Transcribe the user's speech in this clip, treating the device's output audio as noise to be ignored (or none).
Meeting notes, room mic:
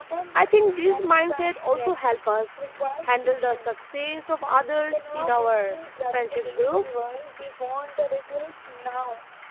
I think this mindset also help us handle the success of others in our friendship group